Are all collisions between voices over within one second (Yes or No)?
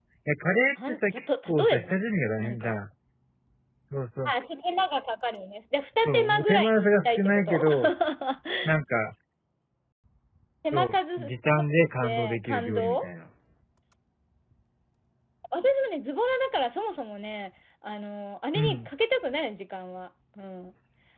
No